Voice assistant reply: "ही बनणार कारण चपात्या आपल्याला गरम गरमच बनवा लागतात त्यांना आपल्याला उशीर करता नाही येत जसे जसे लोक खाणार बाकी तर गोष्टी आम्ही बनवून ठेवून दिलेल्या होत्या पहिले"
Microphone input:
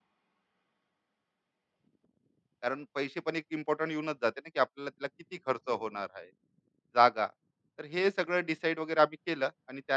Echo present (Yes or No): No